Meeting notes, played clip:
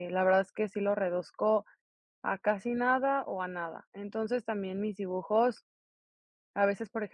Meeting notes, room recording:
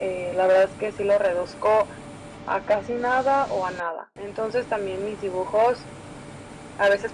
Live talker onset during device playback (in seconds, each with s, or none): none